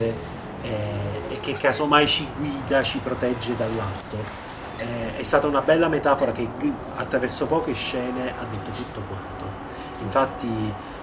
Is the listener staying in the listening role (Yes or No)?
Yes